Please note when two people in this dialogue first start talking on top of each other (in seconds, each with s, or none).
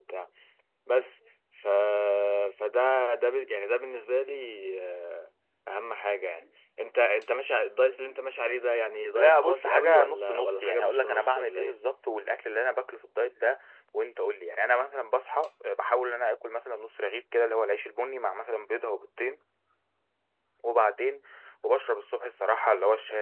9.1 s